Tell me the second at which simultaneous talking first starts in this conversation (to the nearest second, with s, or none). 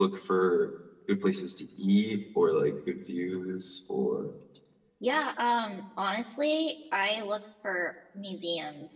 none